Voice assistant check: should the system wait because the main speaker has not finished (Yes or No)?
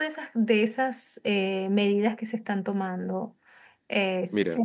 No